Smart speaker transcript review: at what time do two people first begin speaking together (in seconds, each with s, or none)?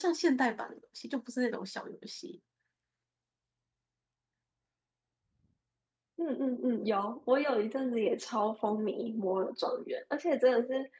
none